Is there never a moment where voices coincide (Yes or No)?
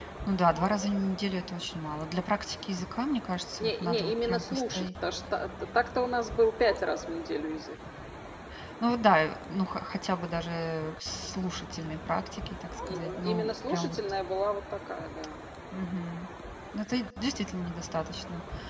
No